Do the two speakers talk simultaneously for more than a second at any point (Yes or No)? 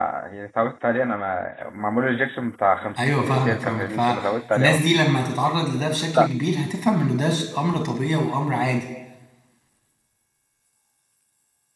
Yes